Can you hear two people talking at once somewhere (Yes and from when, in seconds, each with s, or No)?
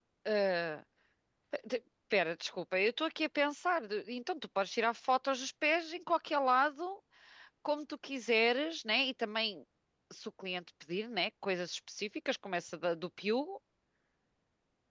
No